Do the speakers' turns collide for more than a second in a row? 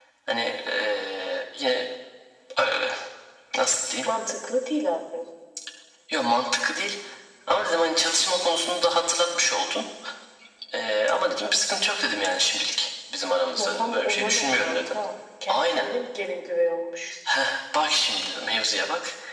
Yes, from 13.6 s

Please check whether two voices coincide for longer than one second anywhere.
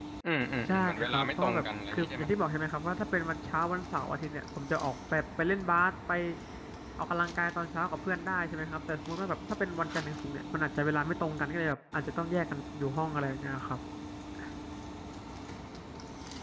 Yes, from 0.6 s

